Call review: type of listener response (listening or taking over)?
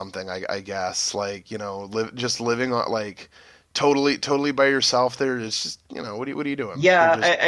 taking over